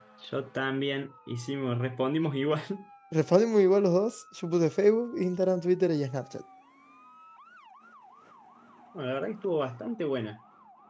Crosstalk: none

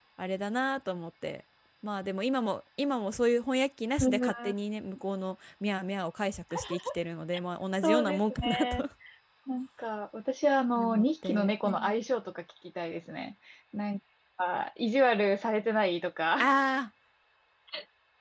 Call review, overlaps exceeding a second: present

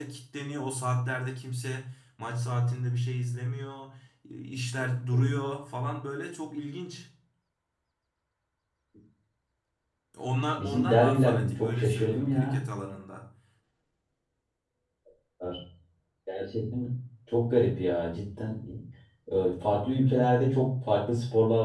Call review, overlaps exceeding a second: present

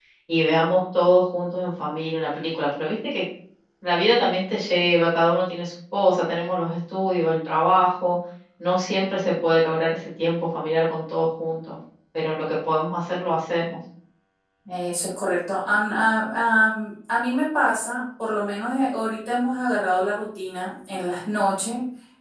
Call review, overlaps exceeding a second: none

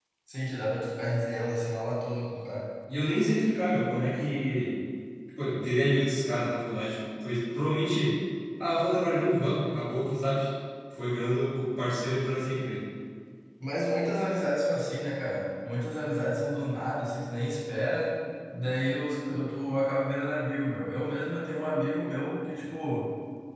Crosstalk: none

